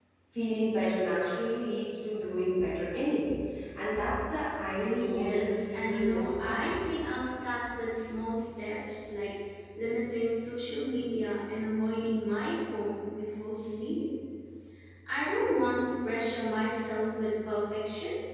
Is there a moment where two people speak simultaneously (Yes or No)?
Yes